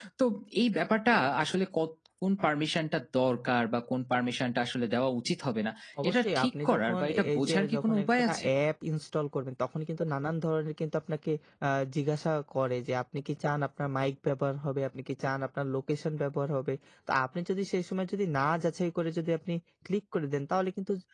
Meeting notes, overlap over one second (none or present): present